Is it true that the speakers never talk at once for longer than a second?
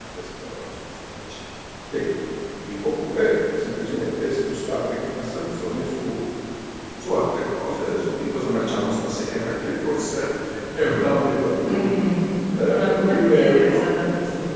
No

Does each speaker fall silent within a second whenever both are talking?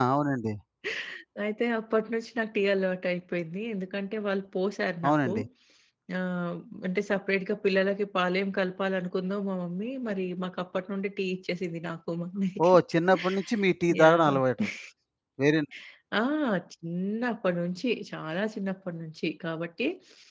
Yes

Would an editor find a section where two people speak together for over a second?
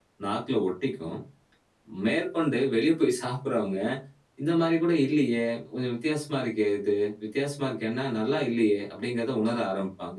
No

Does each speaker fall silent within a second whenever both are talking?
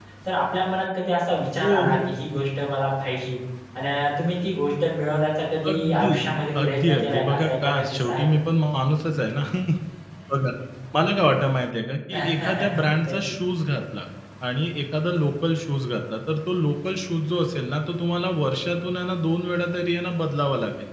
No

